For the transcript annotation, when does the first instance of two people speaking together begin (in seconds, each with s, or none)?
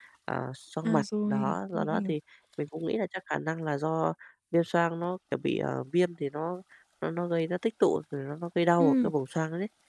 0.8 s